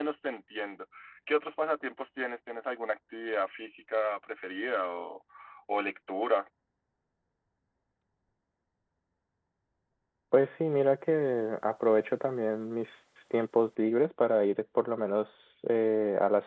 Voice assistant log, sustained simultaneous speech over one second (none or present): none